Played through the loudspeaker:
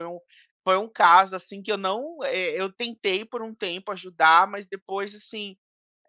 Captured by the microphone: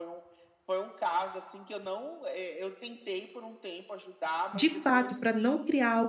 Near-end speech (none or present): present